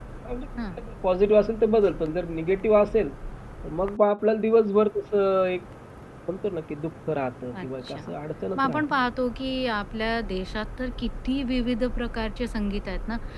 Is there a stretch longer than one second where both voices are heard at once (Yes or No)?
No